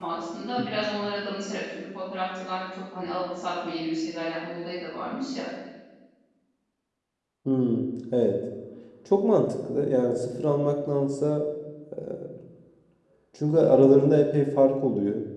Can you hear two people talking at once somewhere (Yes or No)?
No